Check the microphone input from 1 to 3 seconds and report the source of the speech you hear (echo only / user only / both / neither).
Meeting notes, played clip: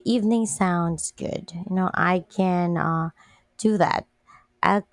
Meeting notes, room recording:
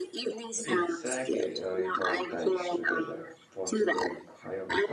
both